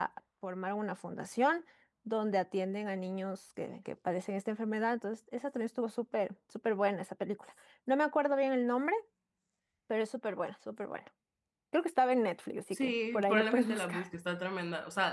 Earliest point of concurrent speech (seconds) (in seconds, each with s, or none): 12.7 s